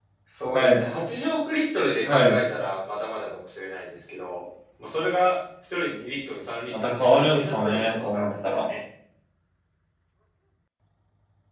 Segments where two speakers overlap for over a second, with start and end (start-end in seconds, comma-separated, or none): 6.7-8.7